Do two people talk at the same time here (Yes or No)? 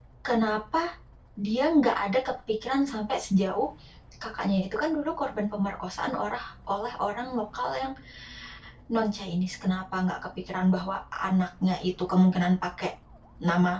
No